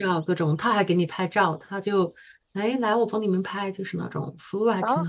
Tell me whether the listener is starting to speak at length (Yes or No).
Yes